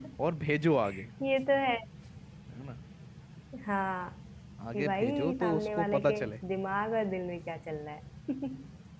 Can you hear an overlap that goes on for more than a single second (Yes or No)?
Yes